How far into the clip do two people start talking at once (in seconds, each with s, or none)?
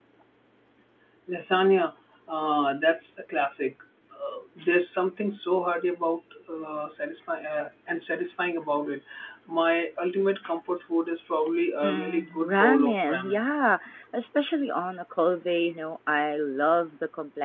11.8 s